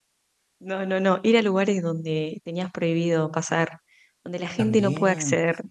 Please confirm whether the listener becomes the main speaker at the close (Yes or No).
Yes